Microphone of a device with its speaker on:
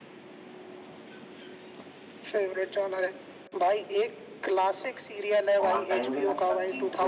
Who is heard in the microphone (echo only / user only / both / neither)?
both